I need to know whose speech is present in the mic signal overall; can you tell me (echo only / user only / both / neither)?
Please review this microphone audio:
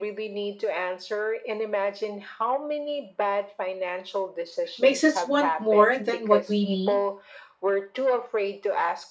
both